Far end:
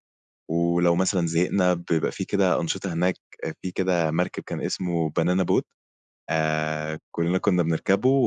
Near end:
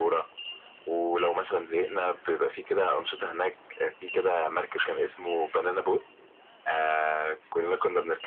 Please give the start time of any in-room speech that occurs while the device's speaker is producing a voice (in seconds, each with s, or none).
none